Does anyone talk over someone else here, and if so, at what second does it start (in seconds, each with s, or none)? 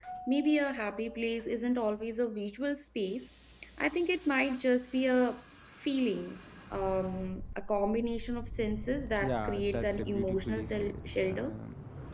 9.2 s